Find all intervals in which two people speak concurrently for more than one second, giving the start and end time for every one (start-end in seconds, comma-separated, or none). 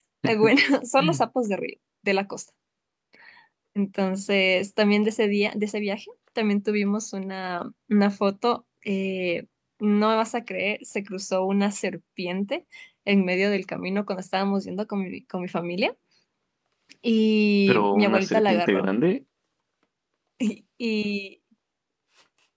17.7-18.9